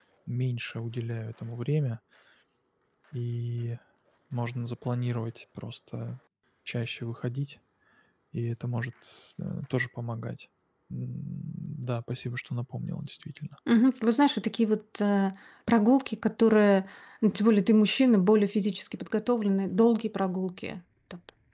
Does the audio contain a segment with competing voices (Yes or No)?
No